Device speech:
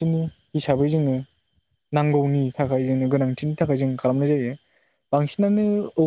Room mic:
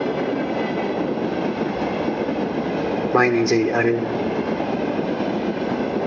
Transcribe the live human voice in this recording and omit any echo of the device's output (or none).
बाहायनाय जायो आरो